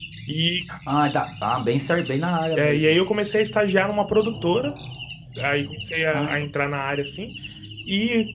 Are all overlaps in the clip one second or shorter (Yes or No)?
Yes